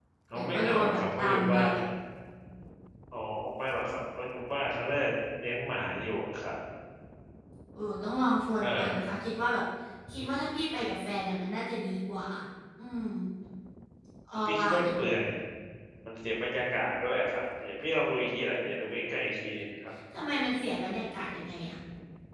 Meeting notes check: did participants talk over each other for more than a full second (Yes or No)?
Yes